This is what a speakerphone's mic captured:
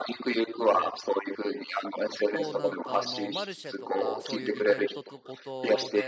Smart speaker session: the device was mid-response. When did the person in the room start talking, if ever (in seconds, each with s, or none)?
2.3 s